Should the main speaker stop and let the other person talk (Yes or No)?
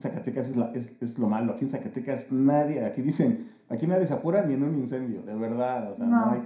No